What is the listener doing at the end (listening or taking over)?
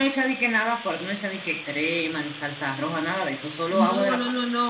taking over